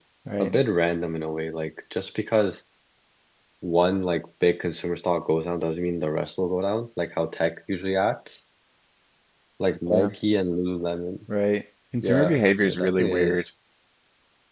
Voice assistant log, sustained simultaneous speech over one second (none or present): present